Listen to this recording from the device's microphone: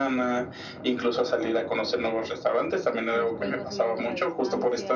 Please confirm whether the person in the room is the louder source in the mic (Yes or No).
No